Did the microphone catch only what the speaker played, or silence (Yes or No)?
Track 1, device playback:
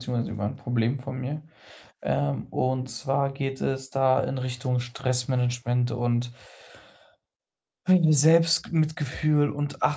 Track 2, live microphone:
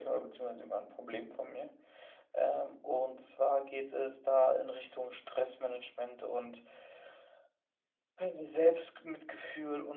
Yes